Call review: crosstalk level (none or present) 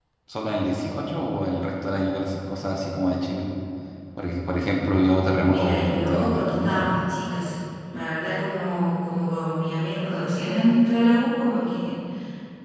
present